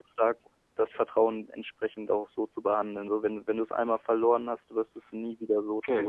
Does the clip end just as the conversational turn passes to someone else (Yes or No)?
Yes